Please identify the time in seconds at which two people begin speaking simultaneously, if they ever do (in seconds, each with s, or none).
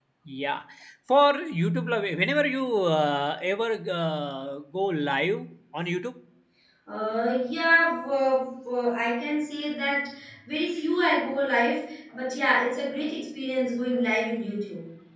none